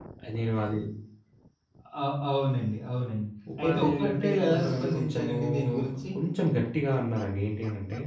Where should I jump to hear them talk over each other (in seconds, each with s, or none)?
3.5 s